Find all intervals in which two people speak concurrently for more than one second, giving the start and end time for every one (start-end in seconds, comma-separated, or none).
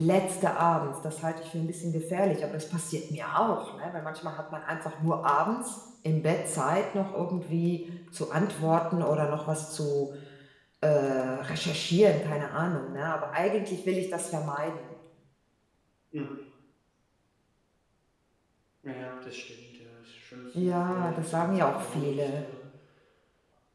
20.6-22.5